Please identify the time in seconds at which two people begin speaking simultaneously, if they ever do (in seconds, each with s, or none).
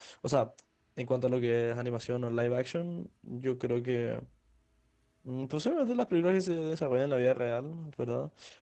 none